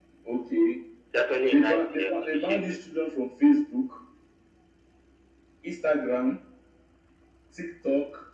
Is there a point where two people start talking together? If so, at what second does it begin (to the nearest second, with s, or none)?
2 s